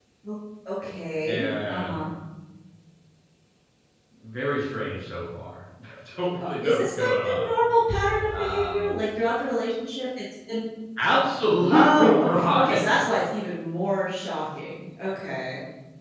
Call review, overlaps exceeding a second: present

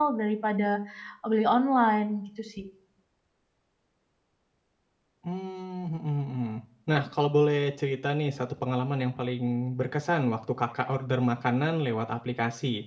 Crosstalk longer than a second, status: none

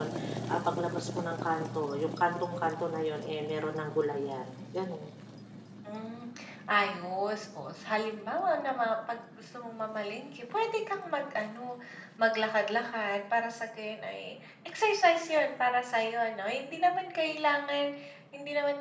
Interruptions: none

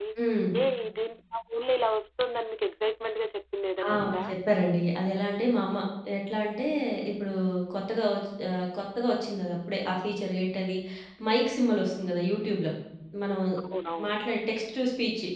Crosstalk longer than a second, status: none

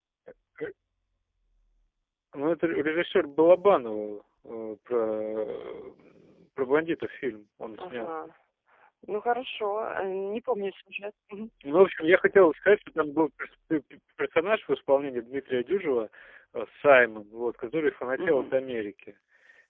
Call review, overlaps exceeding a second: none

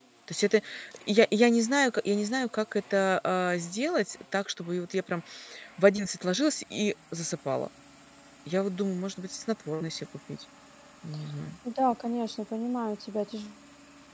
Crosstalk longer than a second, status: none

